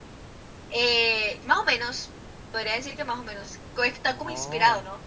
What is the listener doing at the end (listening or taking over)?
listening